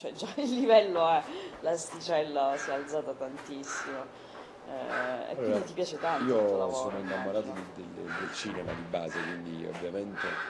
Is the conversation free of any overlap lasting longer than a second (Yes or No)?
No